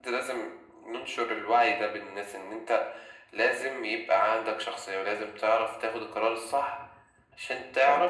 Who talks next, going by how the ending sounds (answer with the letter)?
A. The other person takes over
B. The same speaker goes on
B